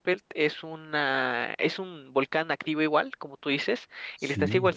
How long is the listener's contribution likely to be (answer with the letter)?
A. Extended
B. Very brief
B